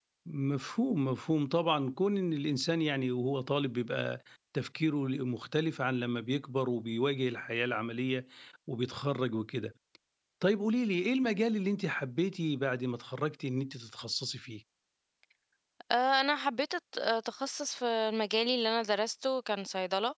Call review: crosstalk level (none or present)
none